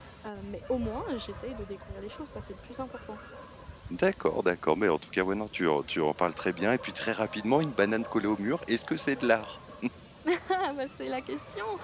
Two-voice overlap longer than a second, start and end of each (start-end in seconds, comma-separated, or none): none